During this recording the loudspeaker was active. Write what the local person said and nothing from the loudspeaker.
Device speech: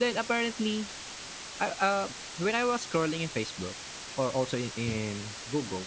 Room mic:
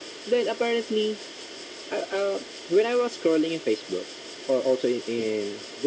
none

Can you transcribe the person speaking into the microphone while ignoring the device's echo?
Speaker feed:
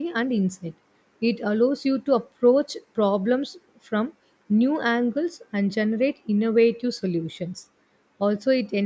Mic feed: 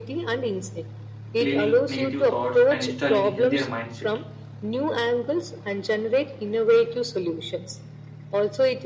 cleaning negative thoughts and installing a healthier mindset.

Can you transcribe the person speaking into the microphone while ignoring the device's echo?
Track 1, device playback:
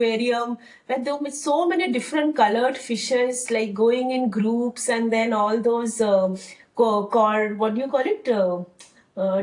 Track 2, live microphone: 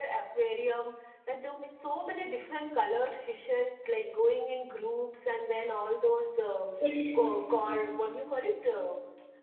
Which,

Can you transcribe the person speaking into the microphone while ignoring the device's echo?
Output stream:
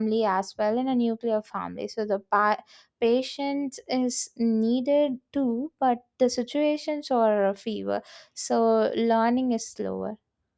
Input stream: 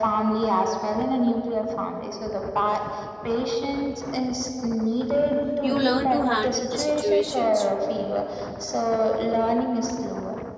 You learn to handle the situations

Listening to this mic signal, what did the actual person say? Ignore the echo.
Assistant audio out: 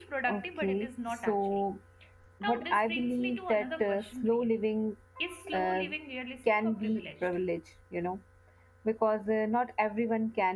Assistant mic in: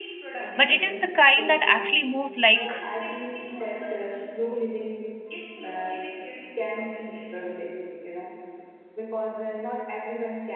but it is the kind that actually moves like

